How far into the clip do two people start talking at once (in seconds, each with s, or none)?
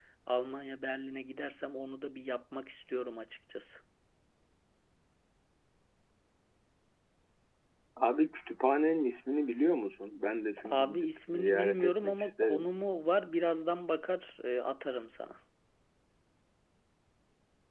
10.6 s